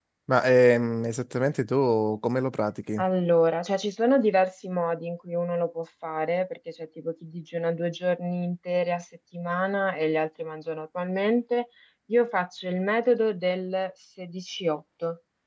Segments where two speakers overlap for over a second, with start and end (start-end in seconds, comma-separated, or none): none